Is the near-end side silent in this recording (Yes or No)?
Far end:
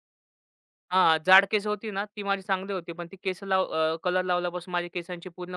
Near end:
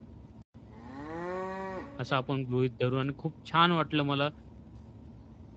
No